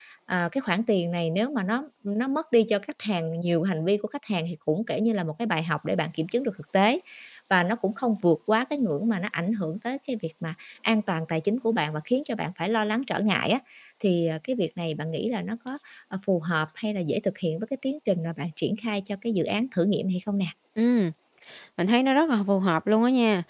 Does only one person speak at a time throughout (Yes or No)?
Yes